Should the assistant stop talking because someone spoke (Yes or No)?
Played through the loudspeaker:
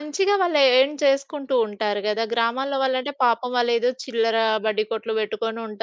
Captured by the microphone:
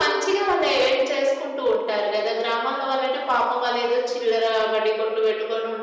No